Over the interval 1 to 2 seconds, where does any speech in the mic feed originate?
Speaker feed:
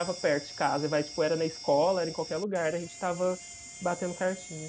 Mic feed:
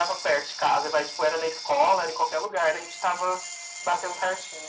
echo only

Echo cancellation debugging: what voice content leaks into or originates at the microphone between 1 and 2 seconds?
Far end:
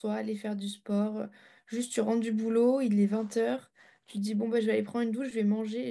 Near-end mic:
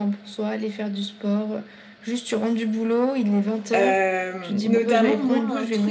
echo only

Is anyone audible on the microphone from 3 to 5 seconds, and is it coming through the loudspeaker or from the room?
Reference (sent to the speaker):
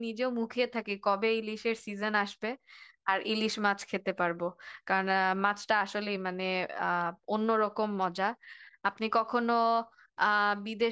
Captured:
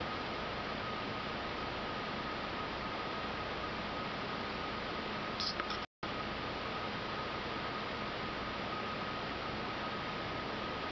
neither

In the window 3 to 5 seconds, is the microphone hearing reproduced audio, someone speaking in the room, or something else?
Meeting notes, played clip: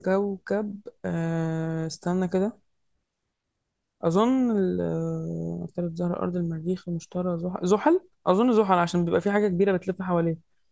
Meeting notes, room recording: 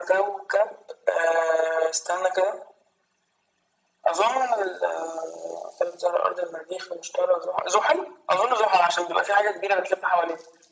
echo only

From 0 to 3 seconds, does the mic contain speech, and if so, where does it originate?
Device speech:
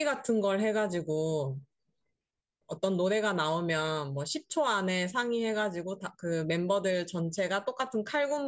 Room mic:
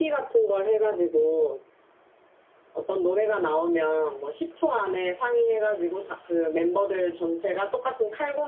echo only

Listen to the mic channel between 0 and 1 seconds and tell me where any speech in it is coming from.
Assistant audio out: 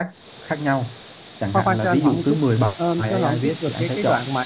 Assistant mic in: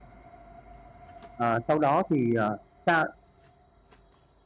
neither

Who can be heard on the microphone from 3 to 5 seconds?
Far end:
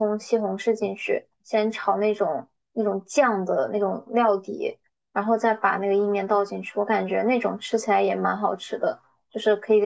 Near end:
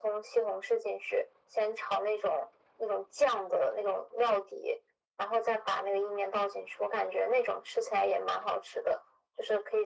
echo only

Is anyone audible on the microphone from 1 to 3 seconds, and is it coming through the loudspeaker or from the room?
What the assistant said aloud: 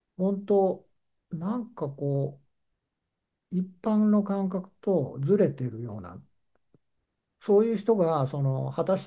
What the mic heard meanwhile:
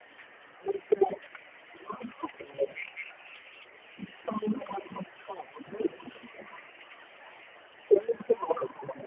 echo only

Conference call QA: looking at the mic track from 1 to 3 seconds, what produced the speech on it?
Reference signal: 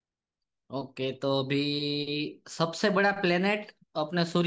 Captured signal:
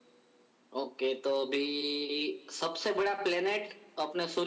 echo only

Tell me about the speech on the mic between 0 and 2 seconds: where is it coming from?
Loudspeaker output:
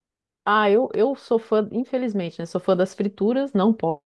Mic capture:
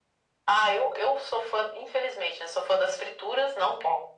echo only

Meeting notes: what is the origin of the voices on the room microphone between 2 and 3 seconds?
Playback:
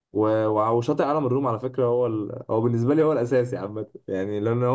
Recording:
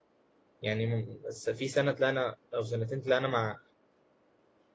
user only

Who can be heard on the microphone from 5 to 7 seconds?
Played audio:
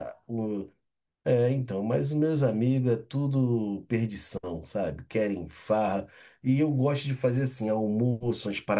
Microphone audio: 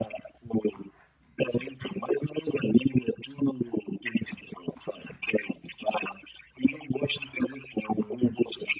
echo only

